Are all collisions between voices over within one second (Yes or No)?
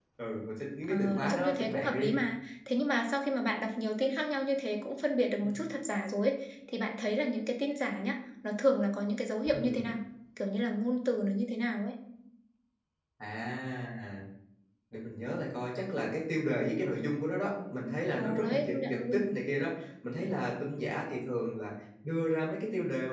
No